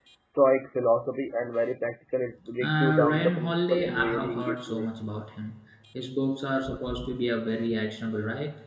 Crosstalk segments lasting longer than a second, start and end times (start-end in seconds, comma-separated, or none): 2.6-4.9